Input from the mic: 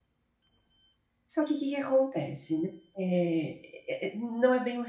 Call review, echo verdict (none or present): none